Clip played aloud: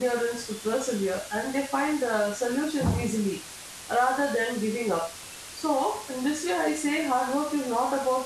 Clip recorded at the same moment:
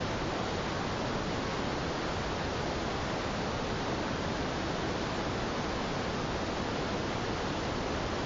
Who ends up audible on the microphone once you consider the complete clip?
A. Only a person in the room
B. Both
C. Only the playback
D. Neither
D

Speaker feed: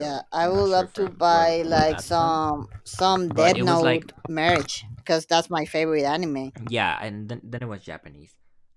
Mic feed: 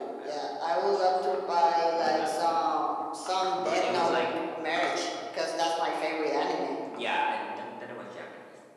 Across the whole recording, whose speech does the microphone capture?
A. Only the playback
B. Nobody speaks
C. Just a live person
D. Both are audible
A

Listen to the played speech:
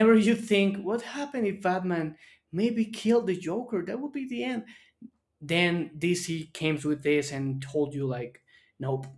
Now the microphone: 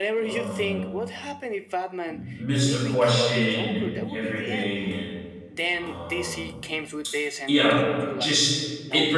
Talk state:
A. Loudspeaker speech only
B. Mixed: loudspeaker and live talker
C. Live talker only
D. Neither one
B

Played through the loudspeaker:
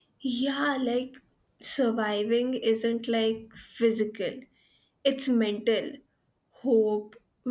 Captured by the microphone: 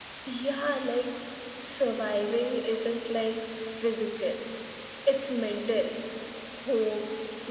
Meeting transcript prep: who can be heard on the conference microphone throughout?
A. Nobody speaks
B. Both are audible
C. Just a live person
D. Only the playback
D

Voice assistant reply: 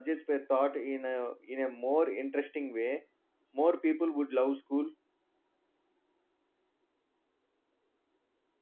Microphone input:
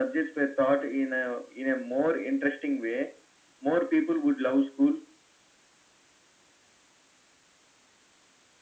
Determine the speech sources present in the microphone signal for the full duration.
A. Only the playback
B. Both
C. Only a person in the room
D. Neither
A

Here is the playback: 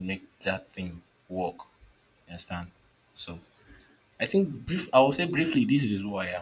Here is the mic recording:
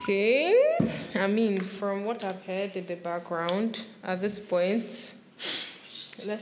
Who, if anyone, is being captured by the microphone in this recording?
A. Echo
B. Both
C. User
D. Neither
C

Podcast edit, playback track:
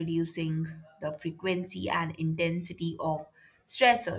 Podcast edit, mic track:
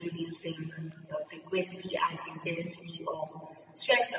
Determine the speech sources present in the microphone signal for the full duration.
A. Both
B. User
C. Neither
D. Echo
D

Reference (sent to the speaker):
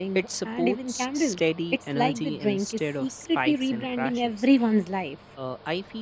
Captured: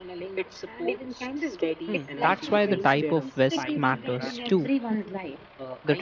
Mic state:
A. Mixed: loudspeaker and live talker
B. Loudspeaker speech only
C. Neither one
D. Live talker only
A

